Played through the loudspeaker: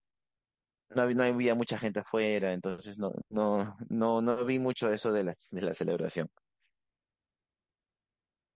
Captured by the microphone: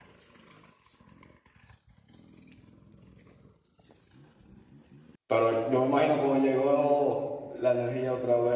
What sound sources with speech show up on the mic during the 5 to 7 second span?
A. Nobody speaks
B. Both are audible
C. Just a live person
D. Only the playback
C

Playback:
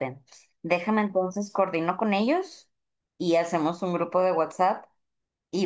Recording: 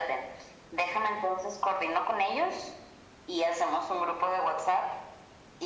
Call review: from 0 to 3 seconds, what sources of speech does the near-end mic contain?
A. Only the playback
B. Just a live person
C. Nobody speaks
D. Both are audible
A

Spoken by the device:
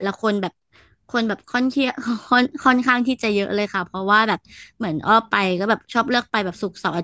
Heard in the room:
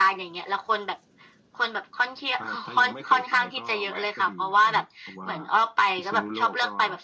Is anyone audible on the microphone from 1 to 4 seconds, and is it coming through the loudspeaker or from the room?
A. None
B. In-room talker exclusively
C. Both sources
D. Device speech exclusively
C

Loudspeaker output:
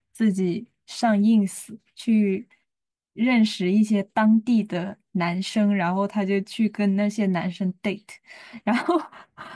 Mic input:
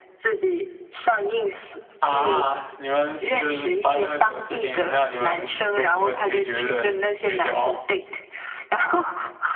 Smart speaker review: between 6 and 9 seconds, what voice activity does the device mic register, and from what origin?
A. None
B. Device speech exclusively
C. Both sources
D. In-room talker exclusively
C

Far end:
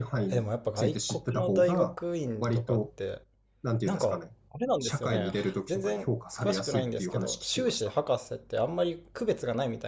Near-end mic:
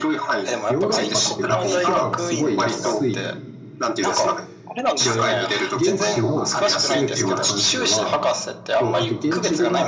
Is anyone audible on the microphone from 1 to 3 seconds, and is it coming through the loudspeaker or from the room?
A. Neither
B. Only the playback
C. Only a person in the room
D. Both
D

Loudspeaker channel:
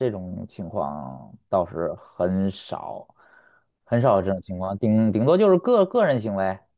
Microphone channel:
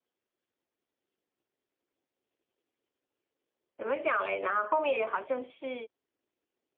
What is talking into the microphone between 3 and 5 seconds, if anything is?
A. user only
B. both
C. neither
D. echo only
A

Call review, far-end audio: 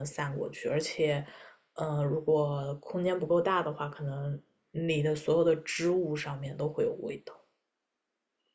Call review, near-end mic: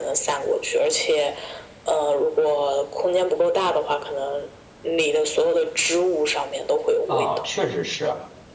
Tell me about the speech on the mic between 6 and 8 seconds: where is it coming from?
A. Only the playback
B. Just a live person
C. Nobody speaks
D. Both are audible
D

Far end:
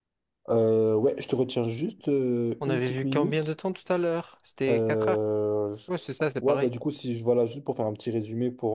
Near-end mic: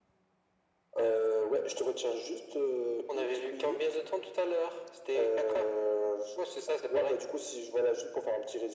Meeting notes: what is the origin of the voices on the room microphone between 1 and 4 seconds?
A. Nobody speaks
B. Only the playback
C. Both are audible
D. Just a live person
B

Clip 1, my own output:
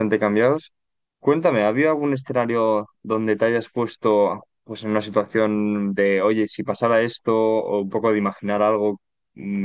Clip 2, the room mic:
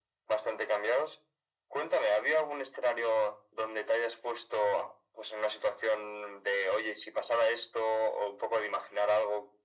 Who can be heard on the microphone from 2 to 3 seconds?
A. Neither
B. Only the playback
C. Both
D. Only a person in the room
B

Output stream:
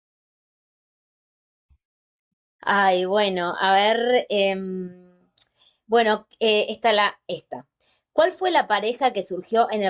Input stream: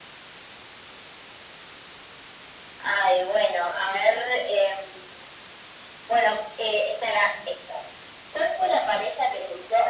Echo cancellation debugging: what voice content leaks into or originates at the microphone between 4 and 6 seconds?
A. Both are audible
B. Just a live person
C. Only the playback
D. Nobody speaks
C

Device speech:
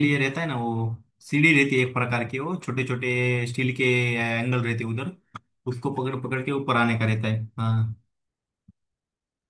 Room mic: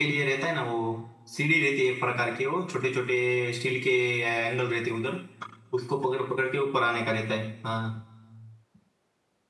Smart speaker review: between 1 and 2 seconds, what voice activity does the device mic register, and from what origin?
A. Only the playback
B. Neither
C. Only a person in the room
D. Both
A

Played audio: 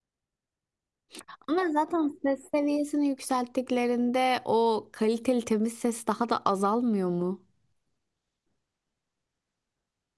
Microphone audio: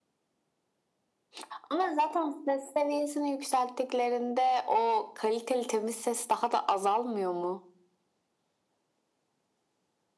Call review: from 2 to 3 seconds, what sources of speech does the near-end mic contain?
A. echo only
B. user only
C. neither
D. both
A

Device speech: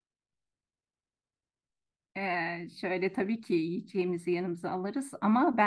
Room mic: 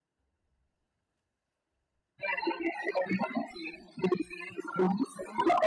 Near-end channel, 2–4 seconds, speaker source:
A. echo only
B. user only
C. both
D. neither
A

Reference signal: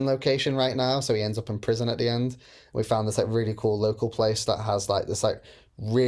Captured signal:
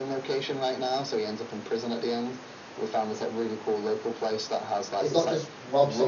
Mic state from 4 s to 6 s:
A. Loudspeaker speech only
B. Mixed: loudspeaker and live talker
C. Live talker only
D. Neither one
B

